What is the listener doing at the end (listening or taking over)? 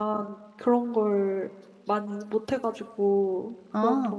listening